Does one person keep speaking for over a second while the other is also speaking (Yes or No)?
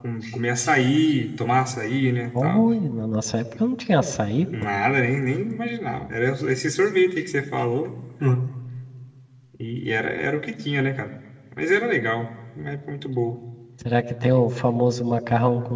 No